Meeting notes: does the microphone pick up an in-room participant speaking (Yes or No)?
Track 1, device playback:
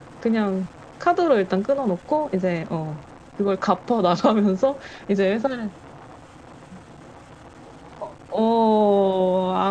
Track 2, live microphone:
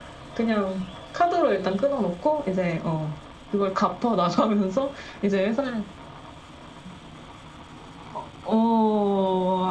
No